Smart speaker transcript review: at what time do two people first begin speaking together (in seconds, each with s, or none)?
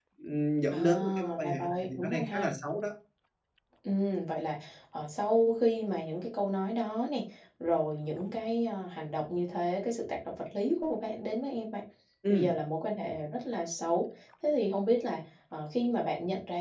0.7 s